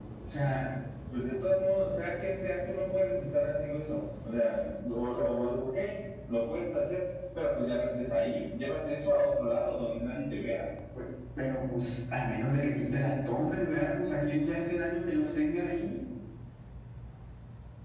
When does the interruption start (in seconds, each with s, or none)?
none